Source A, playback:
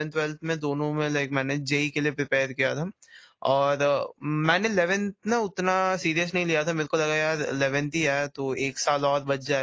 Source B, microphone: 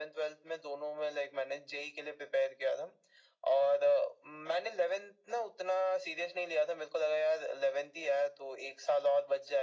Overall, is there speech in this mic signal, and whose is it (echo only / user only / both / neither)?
echo only